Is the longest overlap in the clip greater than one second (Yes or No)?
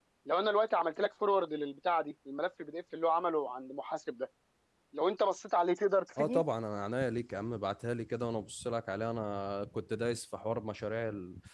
No